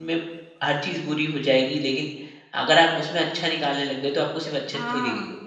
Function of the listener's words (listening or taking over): taking over